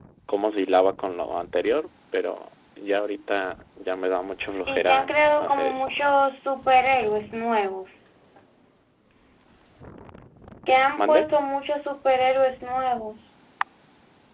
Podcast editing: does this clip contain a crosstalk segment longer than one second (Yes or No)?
Yes